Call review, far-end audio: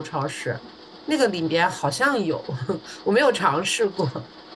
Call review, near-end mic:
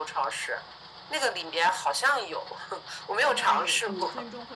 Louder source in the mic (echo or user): echo